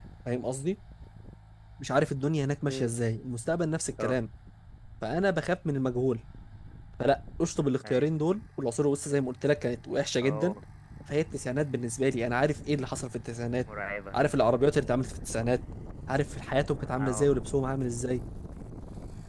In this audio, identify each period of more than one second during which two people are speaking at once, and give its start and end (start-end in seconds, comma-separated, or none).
none